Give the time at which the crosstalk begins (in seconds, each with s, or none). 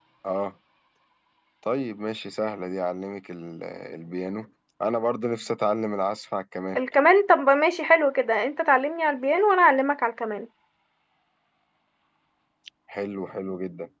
none